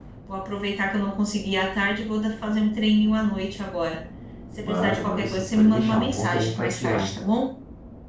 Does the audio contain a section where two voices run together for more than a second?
Yes, from 4.6 s

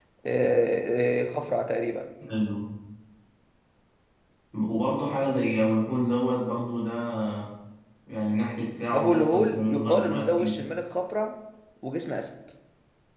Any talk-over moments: Yes, from 8.9 s

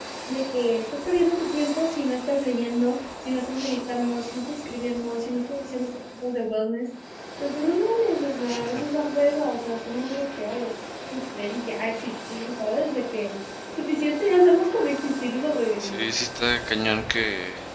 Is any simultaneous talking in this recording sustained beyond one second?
No

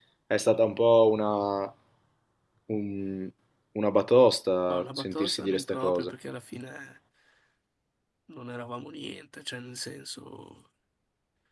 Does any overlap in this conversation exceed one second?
Yes, from 4.7 s

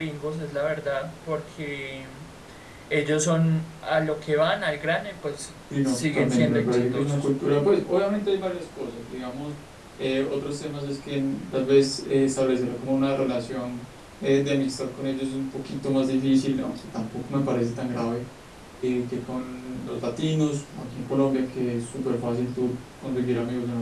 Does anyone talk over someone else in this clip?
Yes, from 5.7 s

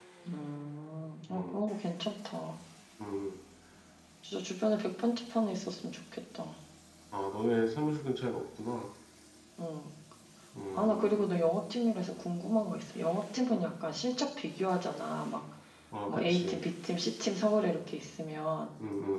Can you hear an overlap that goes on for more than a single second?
No

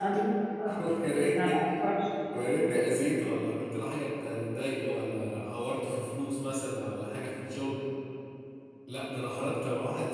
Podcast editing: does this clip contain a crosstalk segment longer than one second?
No

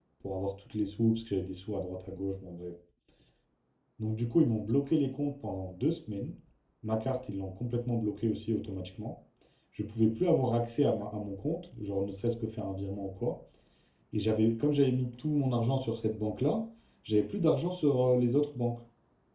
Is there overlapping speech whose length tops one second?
No

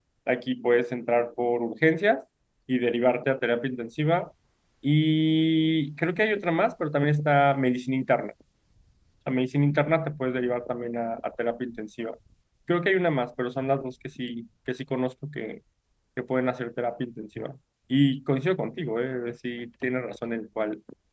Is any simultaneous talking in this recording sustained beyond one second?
No

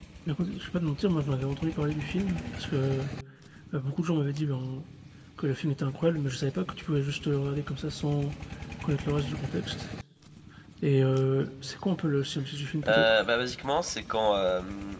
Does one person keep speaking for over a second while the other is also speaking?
No

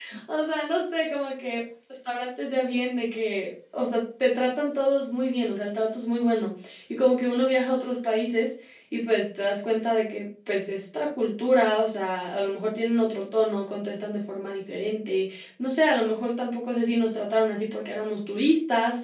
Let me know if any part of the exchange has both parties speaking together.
No

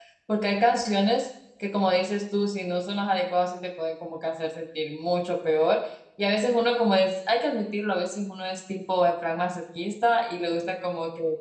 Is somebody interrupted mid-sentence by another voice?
No

